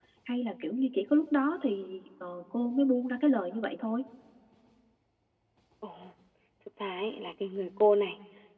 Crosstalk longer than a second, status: none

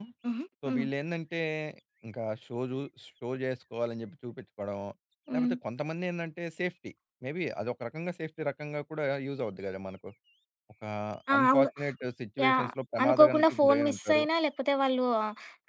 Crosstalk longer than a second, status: present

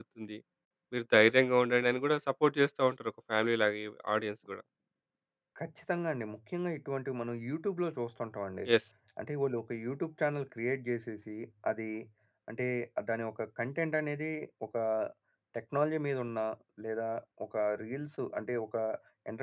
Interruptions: none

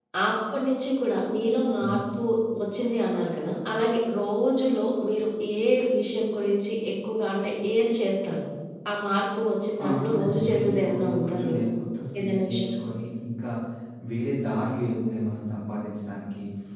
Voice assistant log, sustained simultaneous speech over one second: present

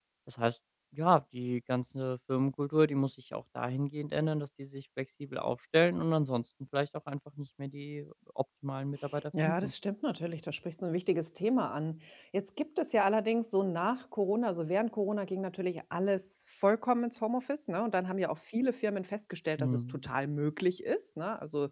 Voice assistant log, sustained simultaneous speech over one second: none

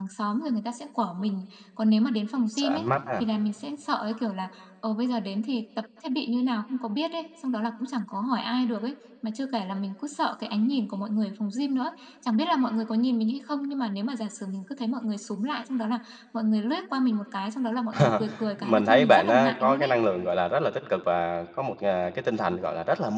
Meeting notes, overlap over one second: present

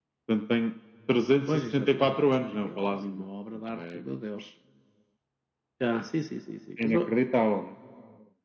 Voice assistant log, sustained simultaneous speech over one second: present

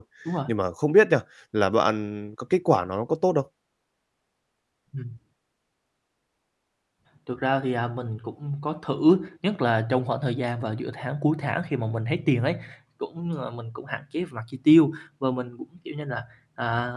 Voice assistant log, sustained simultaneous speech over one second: none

